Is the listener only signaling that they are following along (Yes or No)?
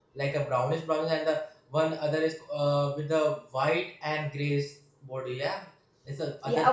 No